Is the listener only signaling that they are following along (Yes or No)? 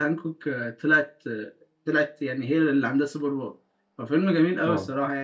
Yes